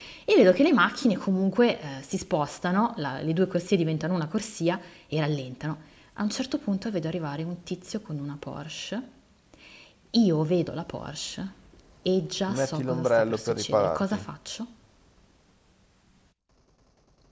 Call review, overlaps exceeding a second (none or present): present